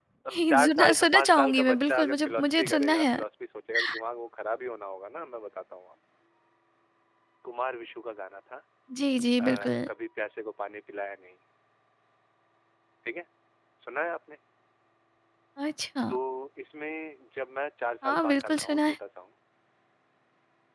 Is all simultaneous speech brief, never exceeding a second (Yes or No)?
No